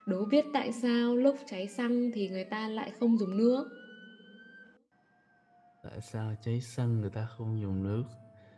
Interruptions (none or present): none